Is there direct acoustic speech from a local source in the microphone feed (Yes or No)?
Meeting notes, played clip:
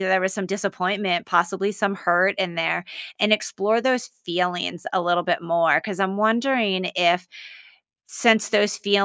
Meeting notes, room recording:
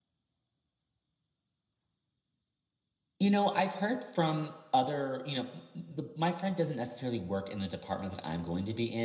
Yes